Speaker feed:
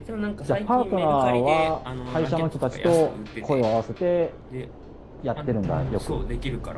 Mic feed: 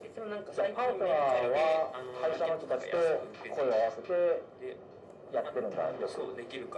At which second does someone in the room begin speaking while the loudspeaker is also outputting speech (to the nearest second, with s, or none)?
none